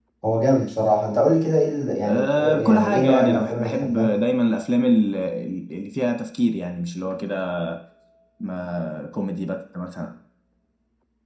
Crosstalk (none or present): present